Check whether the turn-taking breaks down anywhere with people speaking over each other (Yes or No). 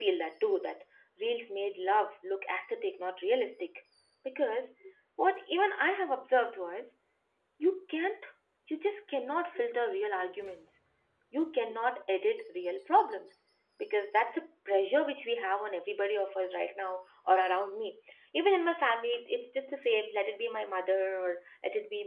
No